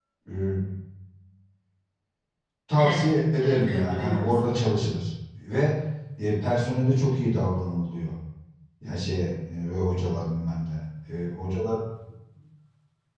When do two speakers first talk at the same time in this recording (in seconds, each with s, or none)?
2.8 s